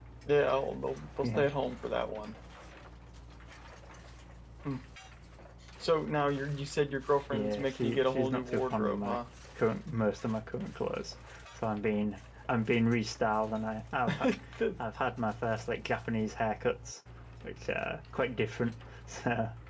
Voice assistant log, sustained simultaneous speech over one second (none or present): present